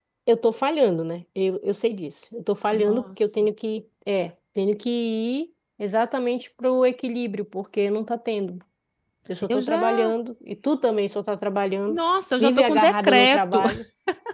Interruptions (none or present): present